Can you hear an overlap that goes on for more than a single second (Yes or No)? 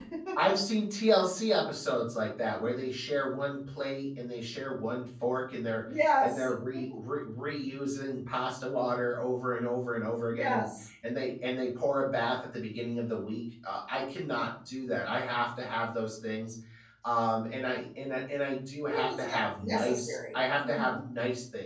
Yes